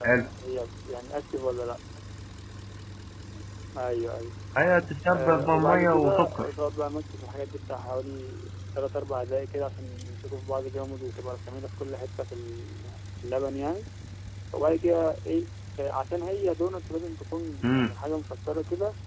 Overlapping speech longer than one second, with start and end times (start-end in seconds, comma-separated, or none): 5.1-6.5